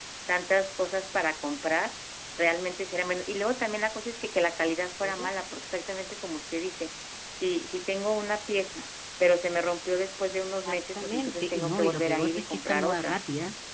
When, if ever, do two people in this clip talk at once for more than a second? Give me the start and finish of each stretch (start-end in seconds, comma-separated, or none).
10.7-13.2